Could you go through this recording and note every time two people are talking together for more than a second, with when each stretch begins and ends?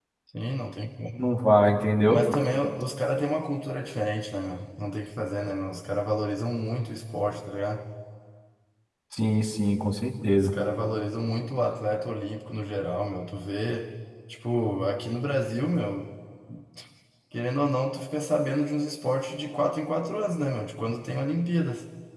none

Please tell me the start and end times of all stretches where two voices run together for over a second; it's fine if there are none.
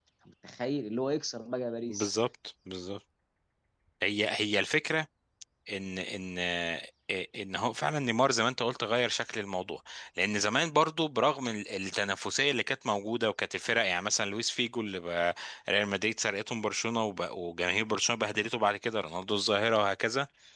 none

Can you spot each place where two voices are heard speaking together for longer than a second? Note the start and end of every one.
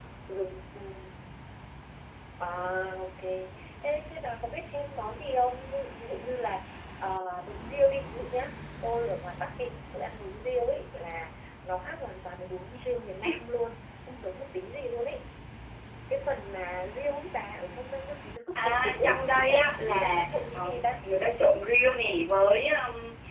18.6-21.0

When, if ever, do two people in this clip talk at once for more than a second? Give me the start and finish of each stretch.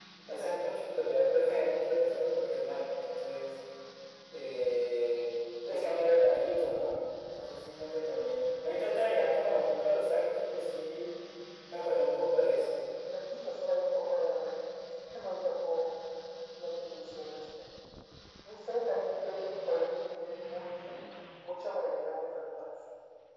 none

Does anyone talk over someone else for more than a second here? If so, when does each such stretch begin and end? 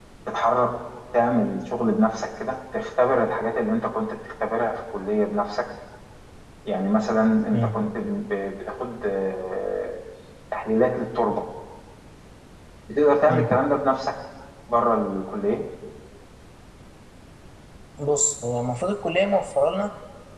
none

